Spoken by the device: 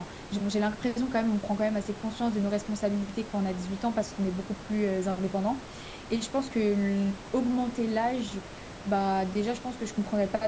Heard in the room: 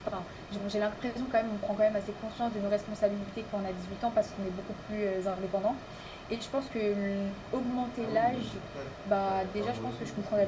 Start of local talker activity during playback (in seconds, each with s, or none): 8.0 s